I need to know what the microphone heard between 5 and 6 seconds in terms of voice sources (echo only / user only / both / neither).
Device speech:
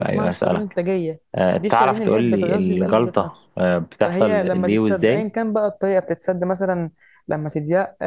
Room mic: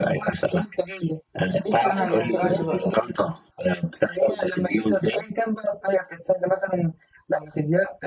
echo only